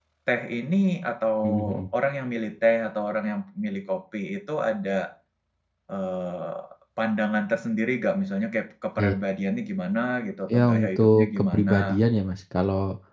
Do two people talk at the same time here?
Yes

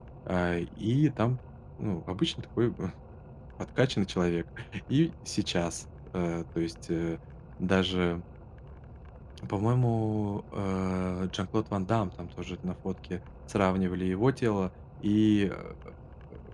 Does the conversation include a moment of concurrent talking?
No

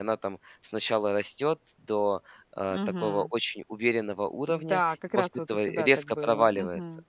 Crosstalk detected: Yes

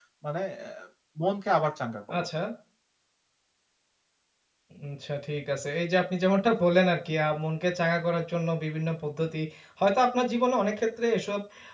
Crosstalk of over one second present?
No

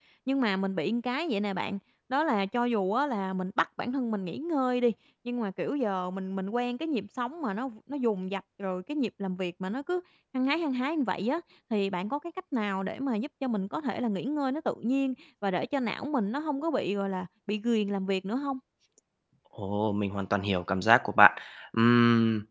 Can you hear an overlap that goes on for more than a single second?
No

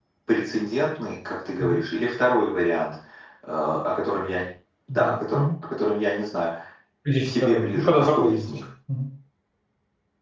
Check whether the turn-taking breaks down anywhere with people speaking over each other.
Yes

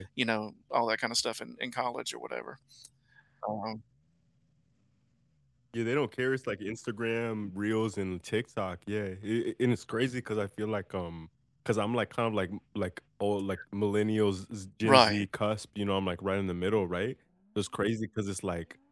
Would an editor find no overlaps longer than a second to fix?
Yes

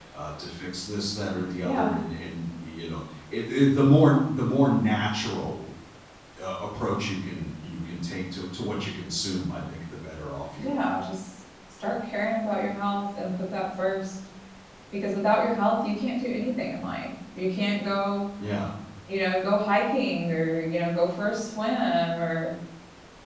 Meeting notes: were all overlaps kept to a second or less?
Yes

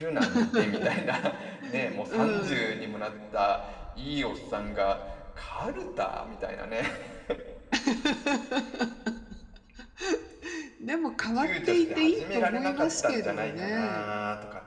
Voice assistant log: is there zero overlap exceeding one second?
No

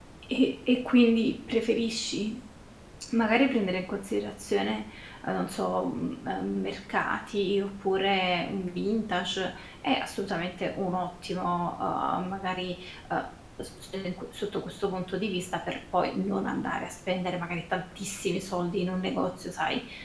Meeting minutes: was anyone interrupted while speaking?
No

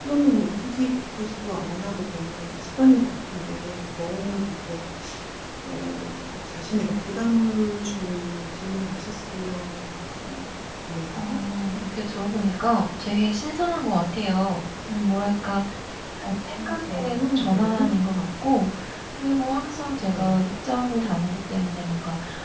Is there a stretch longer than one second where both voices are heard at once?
Yes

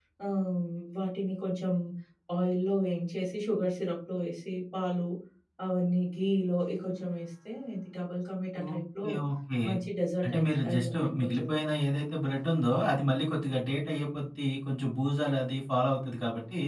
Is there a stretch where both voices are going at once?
Yes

